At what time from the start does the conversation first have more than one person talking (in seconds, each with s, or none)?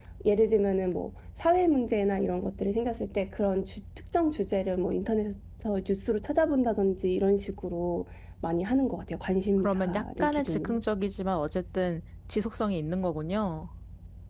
9.6 s